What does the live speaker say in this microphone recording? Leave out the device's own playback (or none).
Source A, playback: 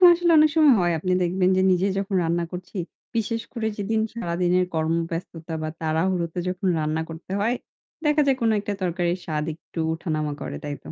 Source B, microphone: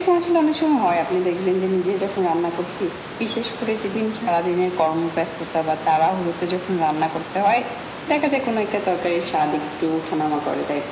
none